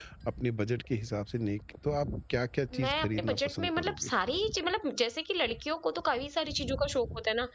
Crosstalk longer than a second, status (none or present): present